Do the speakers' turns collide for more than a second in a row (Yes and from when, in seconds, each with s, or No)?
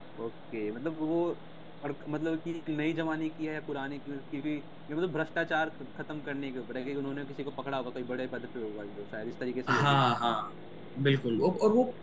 No